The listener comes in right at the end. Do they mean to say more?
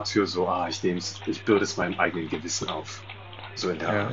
Yes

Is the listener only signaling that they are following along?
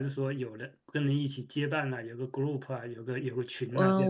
No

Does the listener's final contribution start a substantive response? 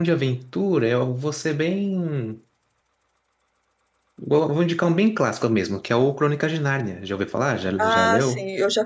Yes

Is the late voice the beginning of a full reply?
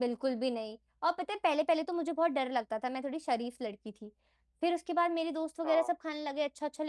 No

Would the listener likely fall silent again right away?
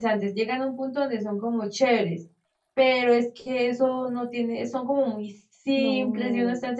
Yes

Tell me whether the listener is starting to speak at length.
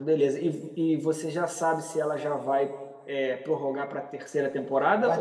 Yes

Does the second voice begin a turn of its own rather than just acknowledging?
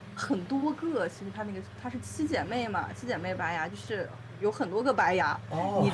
No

